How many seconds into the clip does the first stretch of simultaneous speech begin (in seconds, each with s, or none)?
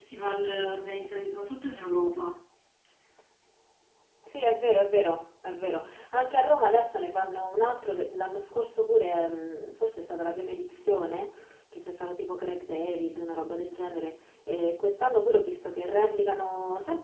none